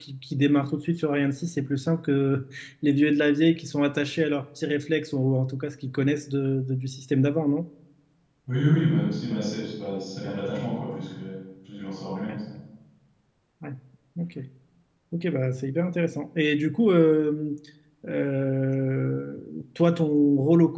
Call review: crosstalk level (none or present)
none